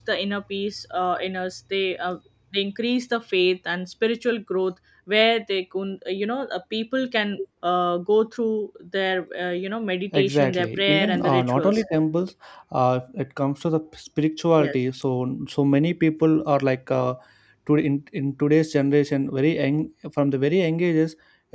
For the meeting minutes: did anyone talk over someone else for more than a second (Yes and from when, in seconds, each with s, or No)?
Yes, from 10.1 s